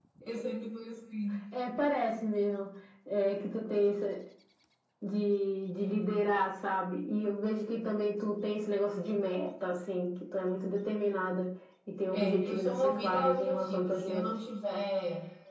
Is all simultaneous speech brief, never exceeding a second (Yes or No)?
No